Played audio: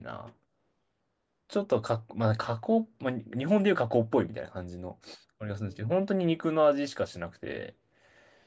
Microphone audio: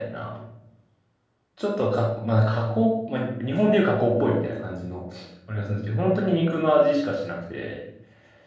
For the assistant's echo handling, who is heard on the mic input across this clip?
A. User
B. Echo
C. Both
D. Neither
B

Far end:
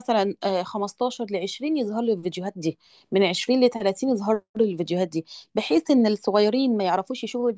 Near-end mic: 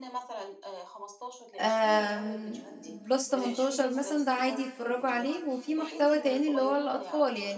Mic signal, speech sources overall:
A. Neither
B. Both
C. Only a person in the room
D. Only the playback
B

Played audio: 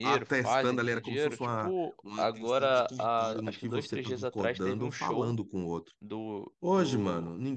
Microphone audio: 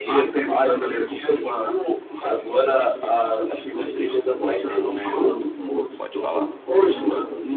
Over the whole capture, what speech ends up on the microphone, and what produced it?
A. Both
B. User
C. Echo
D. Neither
A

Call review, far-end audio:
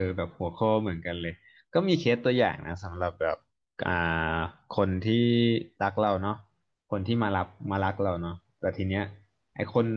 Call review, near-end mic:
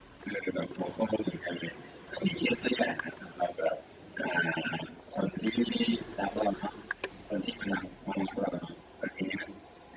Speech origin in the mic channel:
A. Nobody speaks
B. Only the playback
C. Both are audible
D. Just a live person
B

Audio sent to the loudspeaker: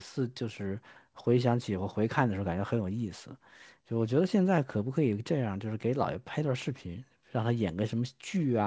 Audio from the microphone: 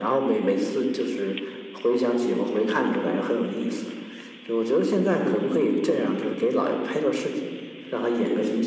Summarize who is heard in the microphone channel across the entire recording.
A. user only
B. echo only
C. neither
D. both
B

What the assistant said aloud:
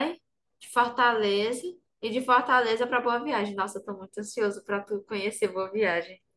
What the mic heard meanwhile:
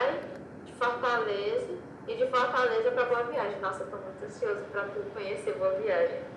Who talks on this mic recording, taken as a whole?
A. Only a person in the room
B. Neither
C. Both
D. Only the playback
D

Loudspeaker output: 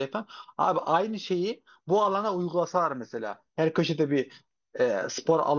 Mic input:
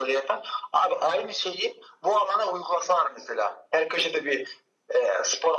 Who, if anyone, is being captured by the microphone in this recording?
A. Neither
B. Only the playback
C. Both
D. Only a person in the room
B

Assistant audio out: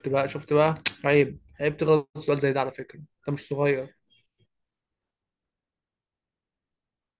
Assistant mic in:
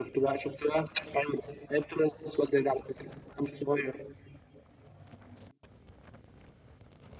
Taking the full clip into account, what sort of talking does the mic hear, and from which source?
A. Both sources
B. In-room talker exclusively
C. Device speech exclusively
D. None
C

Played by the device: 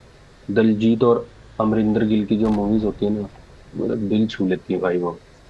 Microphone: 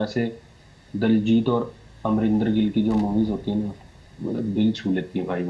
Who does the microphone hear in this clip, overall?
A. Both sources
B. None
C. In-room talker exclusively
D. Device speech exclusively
D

